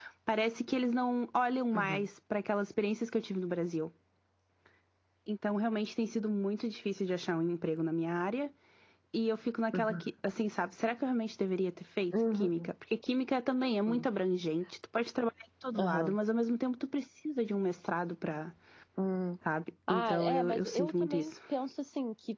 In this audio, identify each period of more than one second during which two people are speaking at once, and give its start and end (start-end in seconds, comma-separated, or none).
19.9-21.3